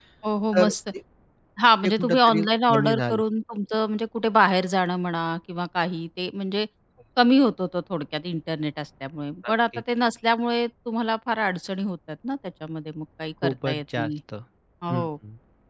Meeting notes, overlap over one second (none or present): present